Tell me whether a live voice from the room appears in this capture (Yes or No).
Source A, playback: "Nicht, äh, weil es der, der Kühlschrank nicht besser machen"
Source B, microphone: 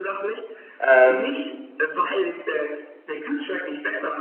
Yes